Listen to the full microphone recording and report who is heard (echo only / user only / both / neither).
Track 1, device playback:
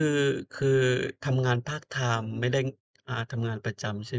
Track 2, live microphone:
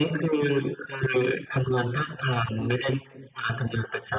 echo only